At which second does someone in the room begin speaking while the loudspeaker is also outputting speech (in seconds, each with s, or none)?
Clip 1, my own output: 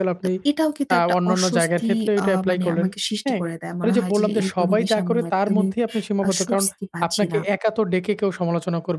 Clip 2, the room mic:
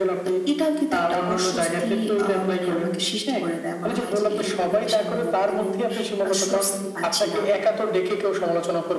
none